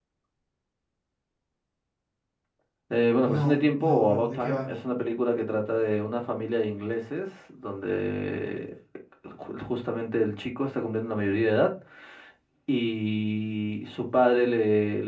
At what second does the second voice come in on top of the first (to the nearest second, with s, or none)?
3 s